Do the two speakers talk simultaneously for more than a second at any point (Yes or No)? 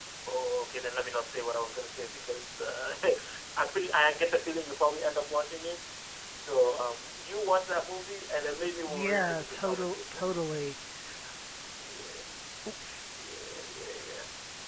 Yes